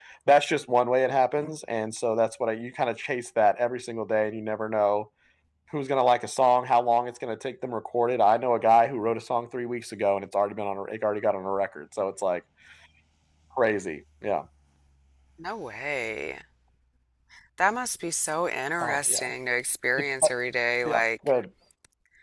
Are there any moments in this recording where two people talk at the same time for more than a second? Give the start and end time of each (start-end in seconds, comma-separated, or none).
none